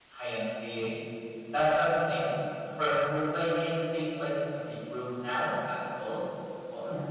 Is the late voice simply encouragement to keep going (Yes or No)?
Yes